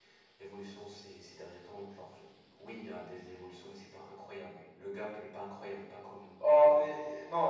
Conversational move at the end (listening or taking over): taking over